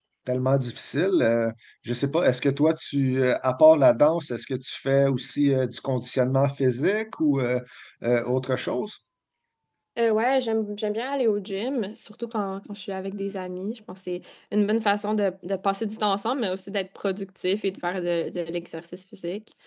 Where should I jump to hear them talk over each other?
none

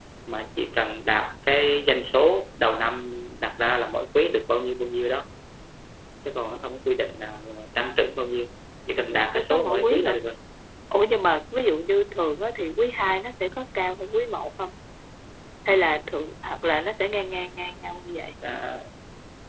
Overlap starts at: 9.0 s

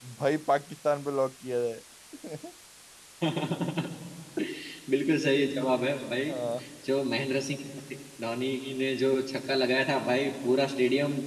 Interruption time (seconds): none

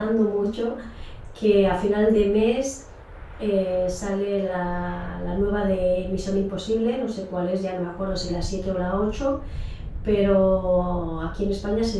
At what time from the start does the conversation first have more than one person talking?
none

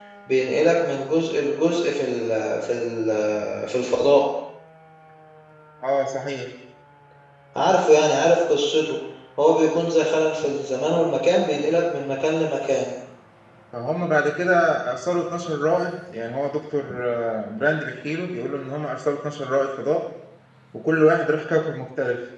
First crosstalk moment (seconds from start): none

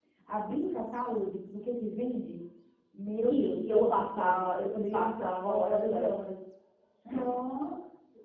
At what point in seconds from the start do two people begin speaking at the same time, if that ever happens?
3.3 s

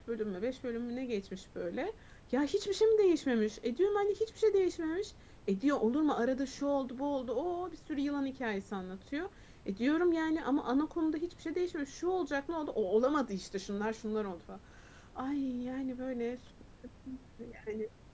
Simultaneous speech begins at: none

